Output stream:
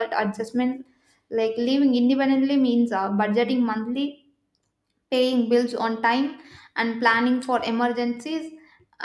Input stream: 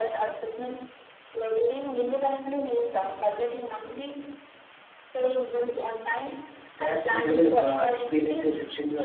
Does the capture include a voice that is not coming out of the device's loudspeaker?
Yes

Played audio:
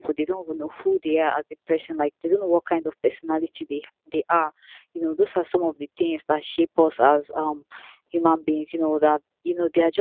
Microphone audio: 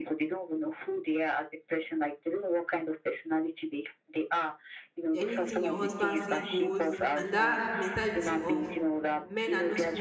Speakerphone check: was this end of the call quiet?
No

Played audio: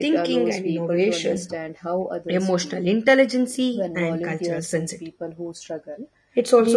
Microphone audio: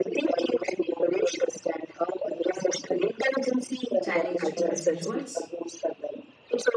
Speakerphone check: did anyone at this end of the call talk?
Yes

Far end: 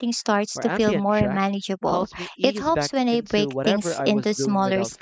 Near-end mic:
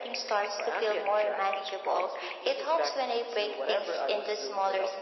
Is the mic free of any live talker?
Yes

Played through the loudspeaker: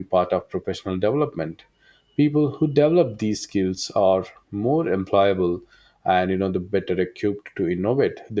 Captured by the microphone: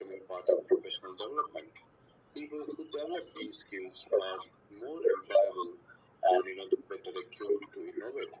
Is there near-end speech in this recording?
No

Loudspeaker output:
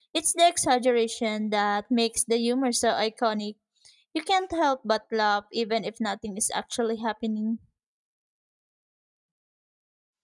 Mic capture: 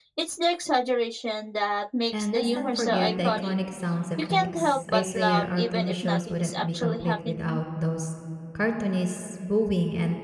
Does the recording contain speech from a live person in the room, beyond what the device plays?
Yes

